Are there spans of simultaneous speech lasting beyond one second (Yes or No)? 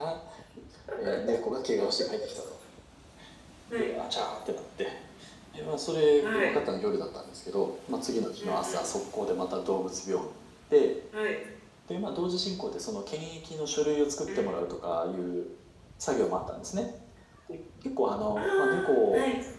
No